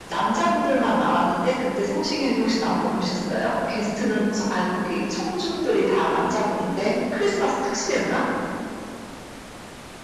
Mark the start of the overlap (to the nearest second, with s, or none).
none